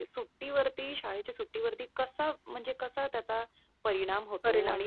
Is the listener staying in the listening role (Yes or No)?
Yes